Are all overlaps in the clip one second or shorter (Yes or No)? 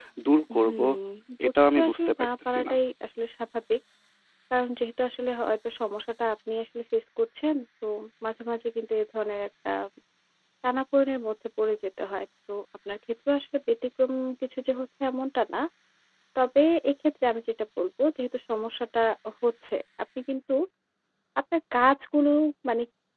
No